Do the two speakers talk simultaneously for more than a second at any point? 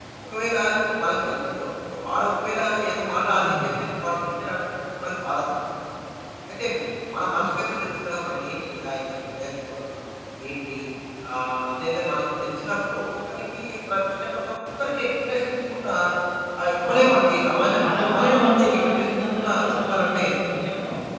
Yes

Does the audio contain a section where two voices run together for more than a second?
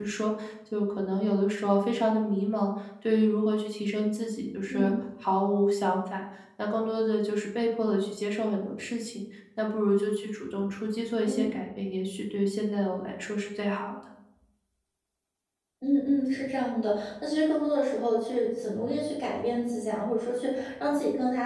No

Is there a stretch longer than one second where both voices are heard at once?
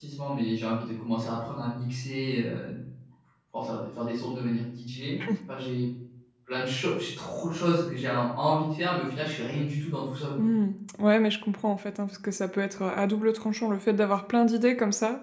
No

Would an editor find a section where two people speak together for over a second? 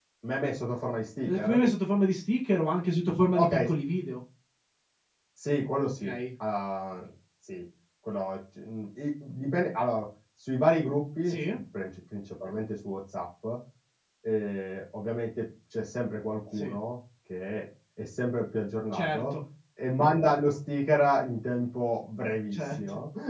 No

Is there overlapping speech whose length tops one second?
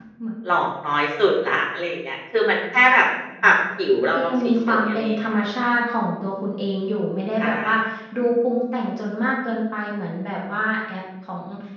Yes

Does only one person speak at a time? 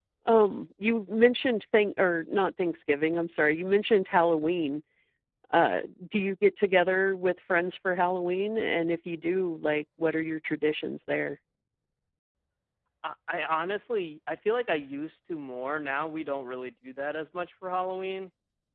Yes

